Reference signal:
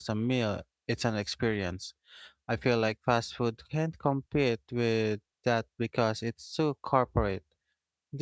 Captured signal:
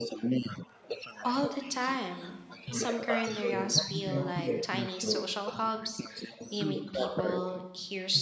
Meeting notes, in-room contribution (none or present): present